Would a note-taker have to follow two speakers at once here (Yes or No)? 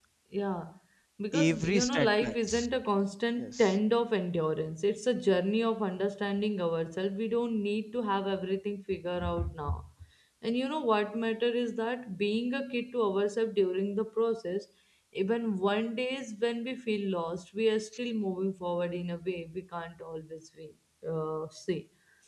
Yes